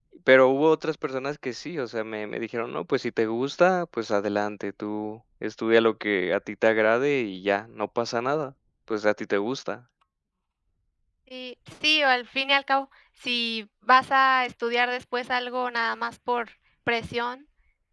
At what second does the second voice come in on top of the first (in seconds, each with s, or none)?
none